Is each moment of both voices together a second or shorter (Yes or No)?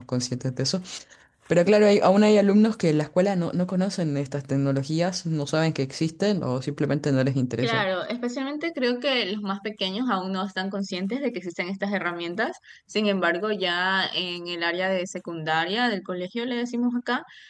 Yes